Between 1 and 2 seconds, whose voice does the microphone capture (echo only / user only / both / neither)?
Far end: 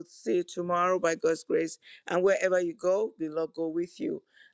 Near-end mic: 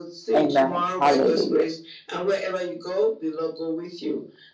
both